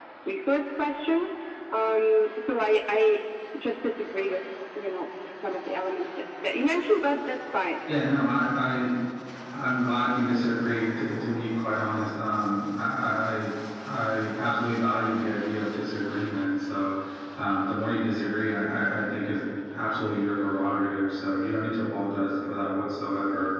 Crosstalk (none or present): none